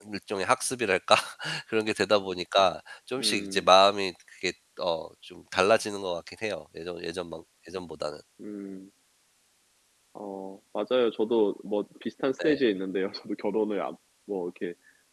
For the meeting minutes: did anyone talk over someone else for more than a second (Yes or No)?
No